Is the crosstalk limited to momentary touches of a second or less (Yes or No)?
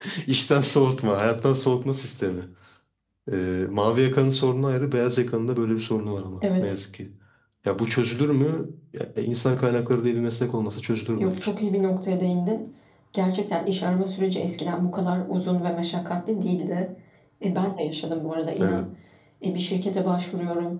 Yes